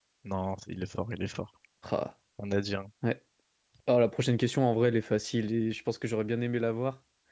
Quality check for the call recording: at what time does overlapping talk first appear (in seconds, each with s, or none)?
none